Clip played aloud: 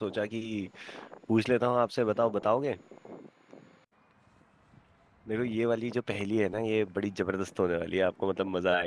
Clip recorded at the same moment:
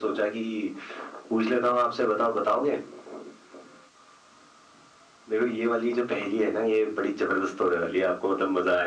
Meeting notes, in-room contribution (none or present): none